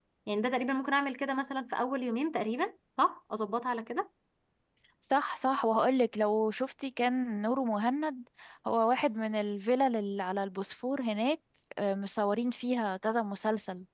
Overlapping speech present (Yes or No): No